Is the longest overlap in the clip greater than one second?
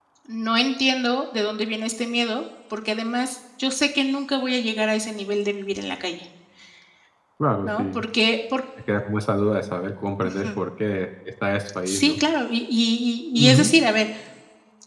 No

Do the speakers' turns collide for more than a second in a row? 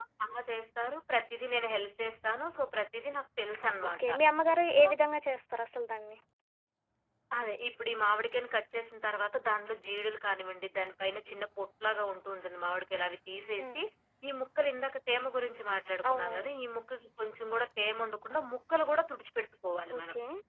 No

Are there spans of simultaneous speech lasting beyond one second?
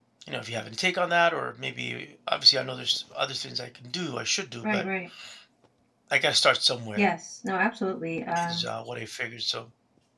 No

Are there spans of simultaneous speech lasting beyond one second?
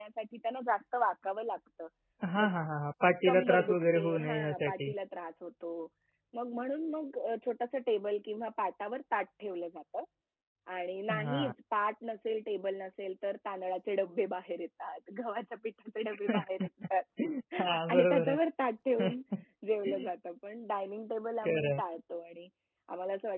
Yes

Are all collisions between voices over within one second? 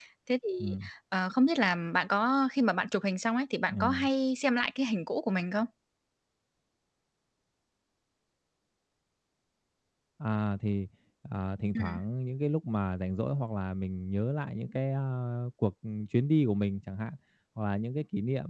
Yes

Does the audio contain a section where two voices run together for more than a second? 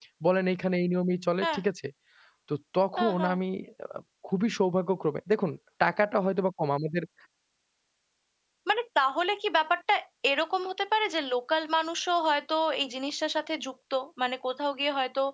No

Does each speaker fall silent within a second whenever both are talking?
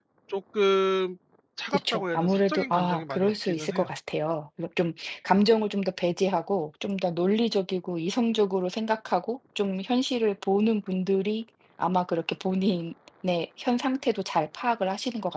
No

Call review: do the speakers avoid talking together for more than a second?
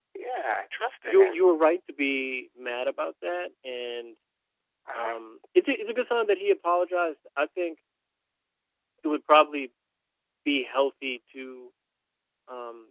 Yes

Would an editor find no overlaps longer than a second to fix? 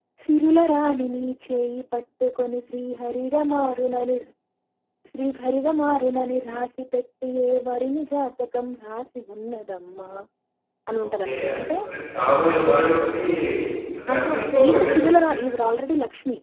No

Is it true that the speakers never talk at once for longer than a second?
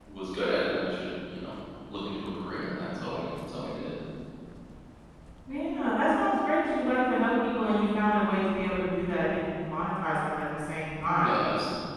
Yes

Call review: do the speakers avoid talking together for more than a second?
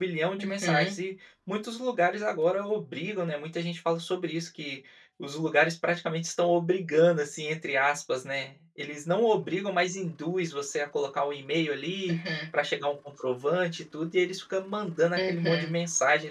Yes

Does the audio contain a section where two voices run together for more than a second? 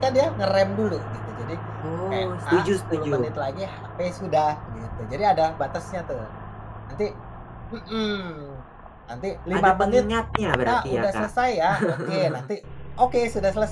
Yes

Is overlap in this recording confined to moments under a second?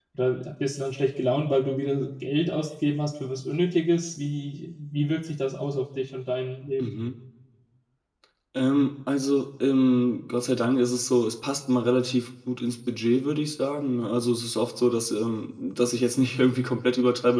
Yes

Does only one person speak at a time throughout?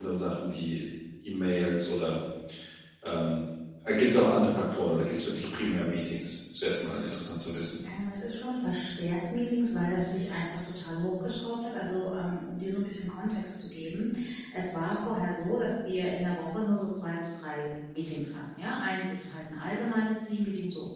Yes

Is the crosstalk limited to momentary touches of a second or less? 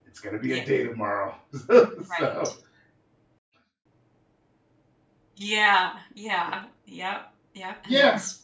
Yes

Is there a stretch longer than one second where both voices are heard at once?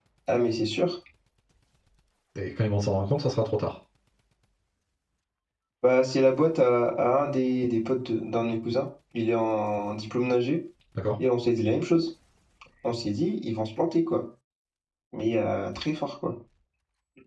No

